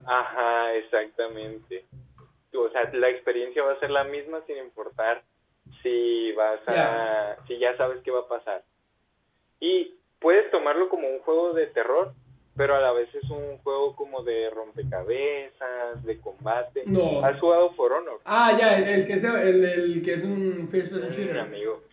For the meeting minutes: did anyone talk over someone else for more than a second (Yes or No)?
No